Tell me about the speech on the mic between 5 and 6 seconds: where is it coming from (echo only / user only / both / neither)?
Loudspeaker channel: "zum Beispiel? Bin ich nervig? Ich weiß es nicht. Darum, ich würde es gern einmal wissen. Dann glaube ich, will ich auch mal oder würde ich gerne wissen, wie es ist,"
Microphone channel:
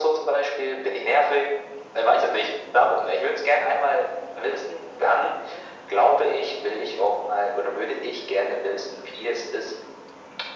echo only